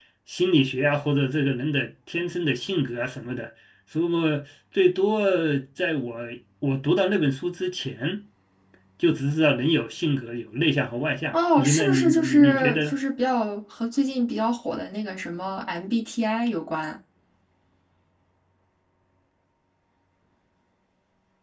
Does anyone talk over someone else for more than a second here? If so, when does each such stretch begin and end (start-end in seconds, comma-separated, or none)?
11.3-12.9